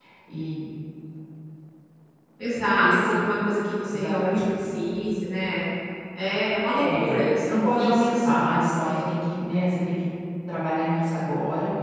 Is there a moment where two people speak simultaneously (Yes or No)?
Yes